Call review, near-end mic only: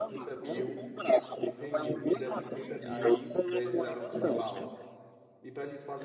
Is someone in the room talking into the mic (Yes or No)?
Yes